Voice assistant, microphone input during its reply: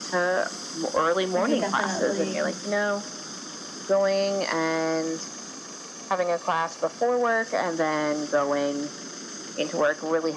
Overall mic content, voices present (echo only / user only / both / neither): both